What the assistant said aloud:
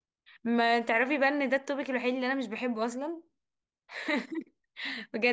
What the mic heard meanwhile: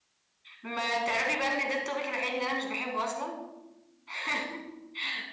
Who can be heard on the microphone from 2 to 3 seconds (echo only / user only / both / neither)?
echo only